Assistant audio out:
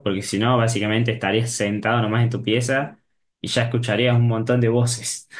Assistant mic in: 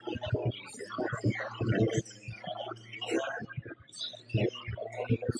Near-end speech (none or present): none